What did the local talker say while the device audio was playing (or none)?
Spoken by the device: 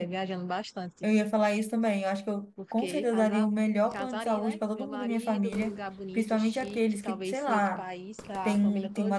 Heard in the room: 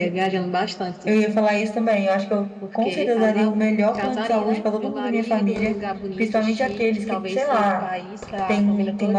none